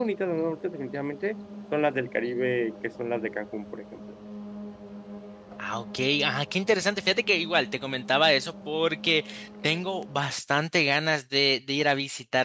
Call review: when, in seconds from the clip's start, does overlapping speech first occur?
none

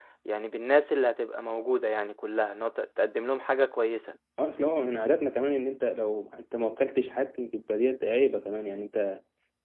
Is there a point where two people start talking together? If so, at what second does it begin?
none

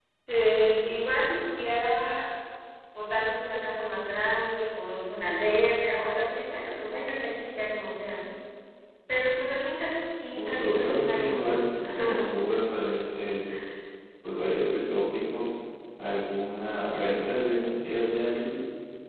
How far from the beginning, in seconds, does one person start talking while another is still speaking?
10.3 s

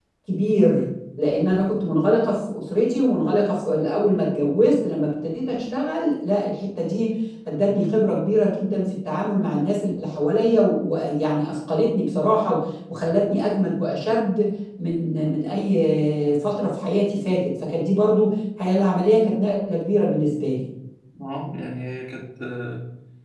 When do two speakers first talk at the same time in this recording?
none

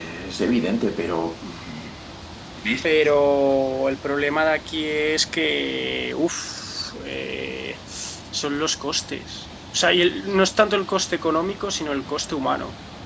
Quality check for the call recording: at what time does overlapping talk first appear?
none

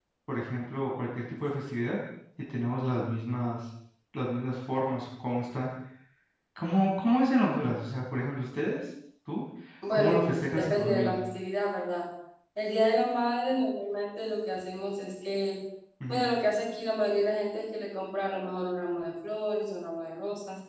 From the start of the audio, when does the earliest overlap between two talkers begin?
9.9 s

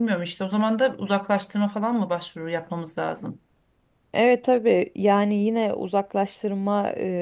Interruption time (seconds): none

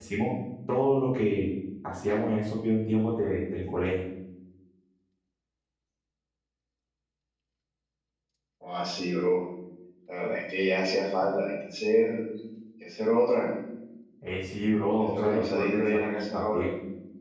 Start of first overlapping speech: 15.1 s

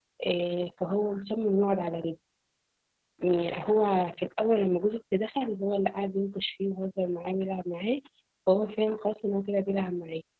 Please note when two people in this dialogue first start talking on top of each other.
none

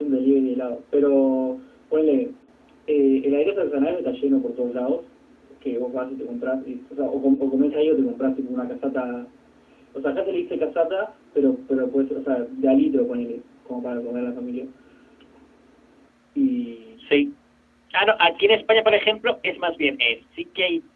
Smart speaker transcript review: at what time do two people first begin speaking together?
none

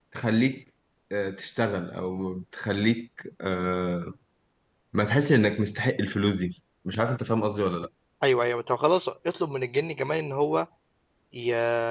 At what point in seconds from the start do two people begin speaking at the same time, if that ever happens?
none

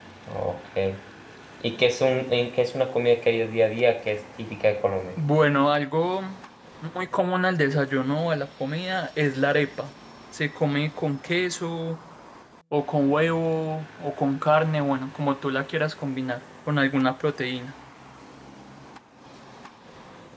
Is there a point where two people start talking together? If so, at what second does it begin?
none

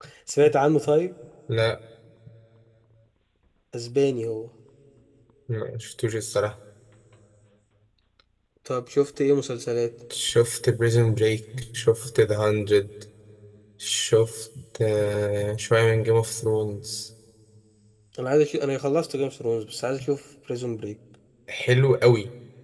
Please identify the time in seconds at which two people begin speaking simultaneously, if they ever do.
none

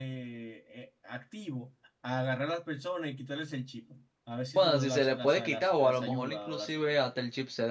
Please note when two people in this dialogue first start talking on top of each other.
4.6 s

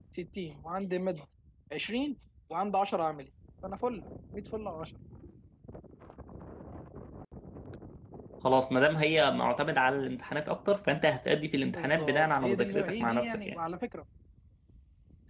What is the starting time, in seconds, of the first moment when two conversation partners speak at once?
11.8 s

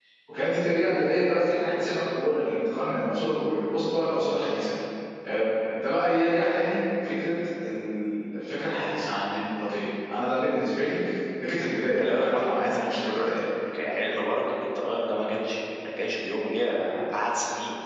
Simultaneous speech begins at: 12.0 s

